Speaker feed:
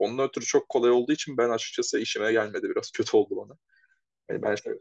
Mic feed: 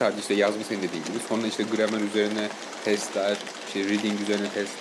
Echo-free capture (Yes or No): Yes